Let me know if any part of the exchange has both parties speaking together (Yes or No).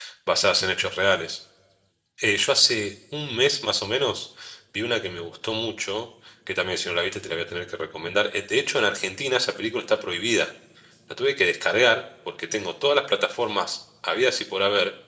No